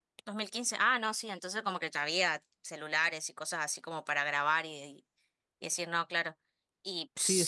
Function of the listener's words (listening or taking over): taking over